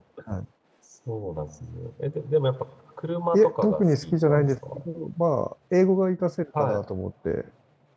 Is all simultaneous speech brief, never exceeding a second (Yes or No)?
No